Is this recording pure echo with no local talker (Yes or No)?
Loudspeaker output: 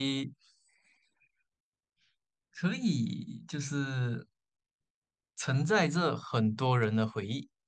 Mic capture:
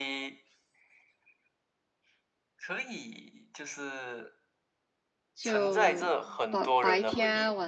No